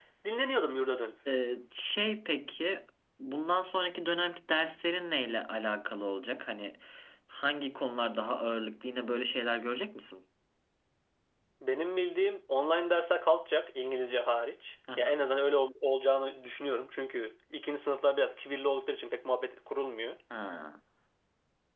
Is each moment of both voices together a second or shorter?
Yes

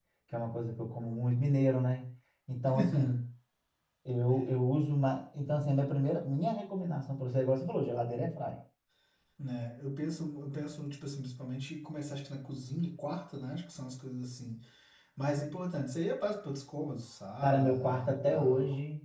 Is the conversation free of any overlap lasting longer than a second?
No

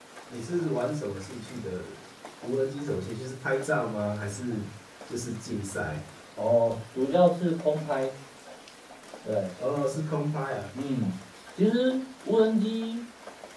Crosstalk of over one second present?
No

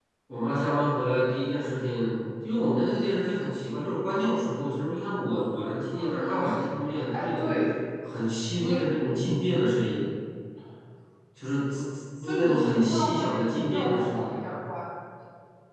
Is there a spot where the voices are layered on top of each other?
Yes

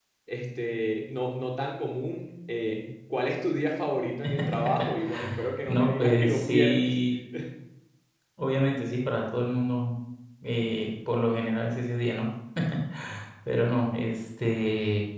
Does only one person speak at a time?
No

